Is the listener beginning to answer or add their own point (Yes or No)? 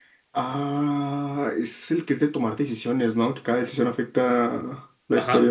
Yes